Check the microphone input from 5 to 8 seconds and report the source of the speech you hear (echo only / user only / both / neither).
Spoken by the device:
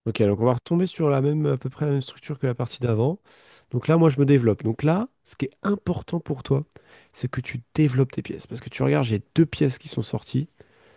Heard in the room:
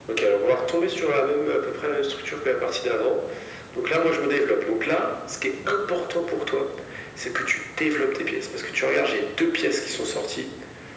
echo only